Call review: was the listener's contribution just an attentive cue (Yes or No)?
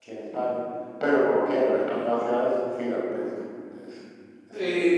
No